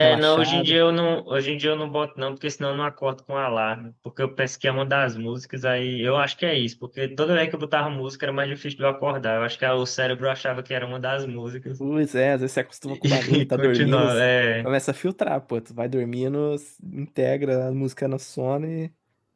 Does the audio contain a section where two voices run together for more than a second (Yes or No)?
Yes